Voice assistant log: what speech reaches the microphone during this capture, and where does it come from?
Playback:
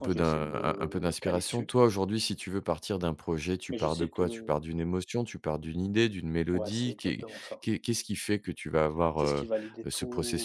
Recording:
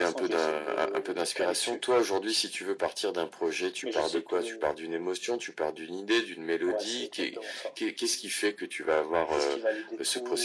echo only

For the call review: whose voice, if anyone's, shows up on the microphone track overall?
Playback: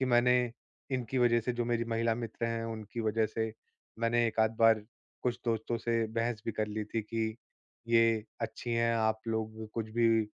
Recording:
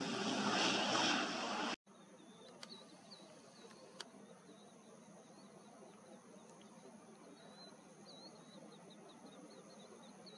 neither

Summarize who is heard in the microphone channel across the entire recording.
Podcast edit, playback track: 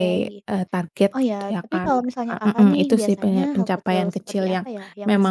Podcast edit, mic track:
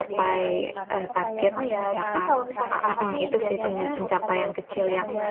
both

